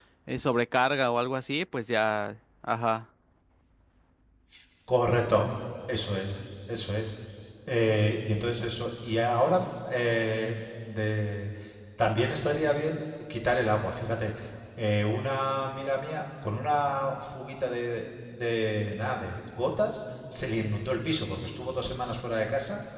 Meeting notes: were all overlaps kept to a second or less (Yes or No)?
Yes